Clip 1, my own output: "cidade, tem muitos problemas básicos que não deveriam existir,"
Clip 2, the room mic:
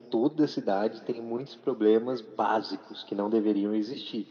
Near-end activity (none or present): none